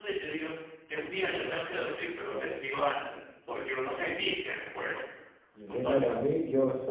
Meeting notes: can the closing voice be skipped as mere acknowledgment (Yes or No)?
No